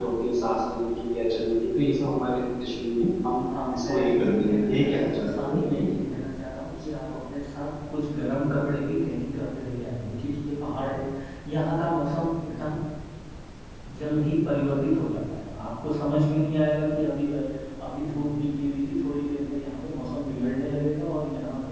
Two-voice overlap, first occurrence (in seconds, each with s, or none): 3.5 s